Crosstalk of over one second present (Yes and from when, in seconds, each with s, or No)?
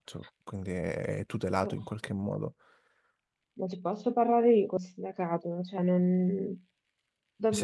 No